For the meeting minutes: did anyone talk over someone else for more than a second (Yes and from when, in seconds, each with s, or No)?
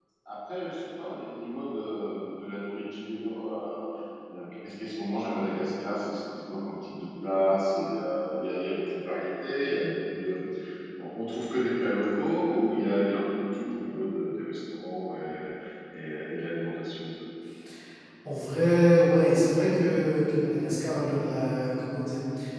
No